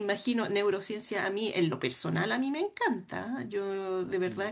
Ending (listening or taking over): listening